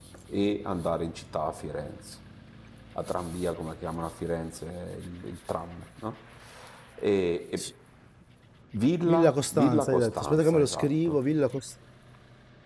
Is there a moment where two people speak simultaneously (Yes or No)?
Yes